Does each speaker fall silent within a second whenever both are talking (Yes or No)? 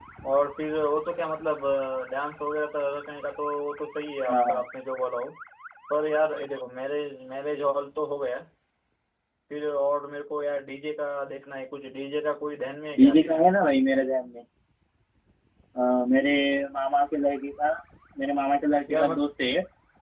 Yes